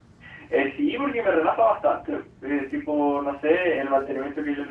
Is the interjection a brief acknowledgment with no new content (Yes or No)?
Yes